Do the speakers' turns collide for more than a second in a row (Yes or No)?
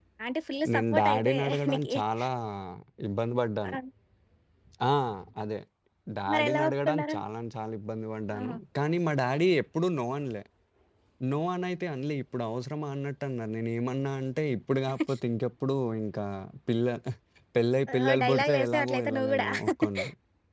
Yes